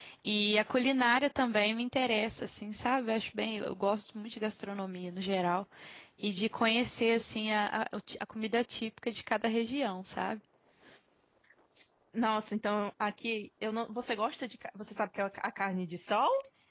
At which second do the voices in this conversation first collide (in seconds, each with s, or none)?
none